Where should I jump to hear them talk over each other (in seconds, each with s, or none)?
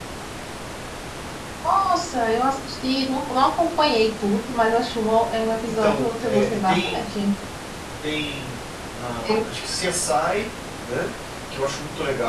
5.8 s